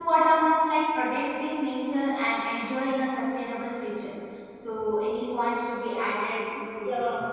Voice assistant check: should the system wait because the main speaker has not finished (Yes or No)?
No